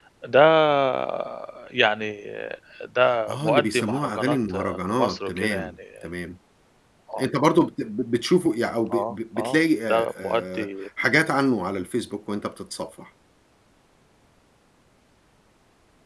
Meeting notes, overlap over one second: present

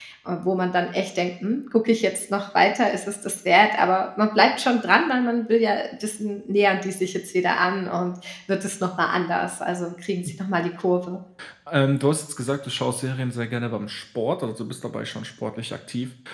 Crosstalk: none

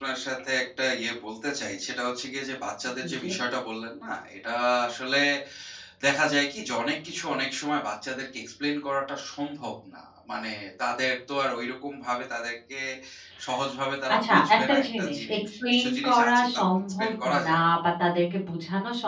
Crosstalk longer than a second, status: present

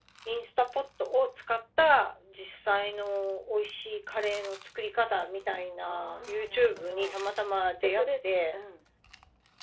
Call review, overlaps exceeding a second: present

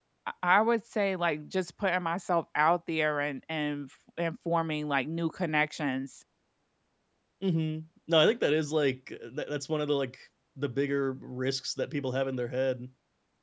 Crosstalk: none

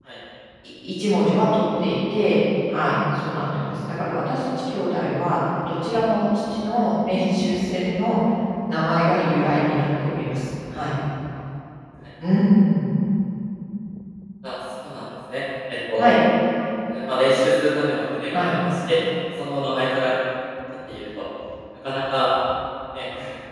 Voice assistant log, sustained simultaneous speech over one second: none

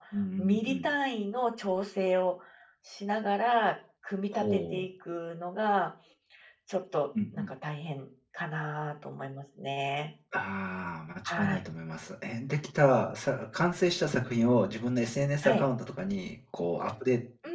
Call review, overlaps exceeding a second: none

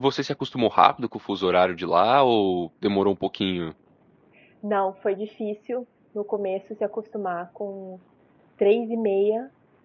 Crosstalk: none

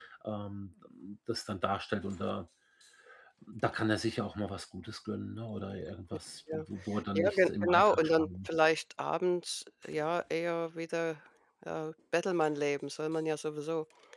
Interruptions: present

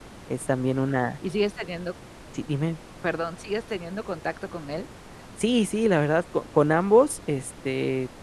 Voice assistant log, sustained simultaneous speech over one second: none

